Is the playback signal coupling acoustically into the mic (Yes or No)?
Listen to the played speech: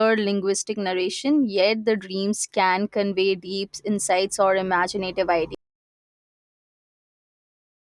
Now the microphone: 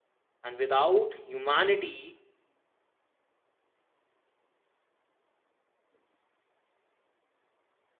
No